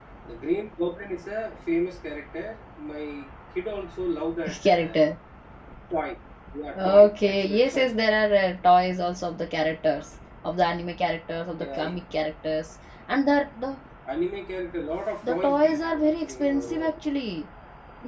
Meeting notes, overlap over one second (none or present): present